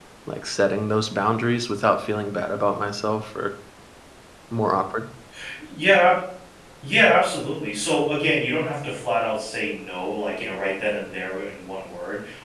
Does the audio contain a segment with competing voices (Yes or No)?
No